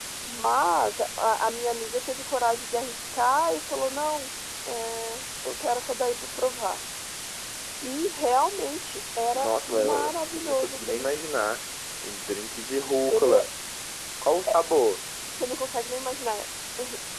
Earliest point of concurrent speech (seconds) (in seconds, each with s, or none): 9.3 s